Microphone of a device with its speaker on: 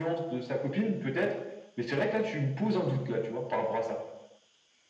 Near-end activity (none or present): none